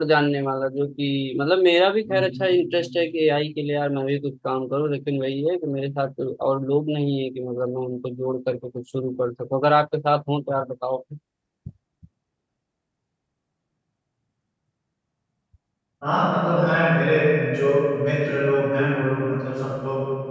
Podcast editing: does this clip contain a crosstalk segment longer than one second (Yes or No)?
No